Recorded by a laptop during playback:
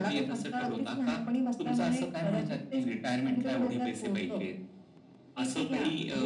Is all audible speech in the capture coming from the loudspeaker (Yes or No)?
Yes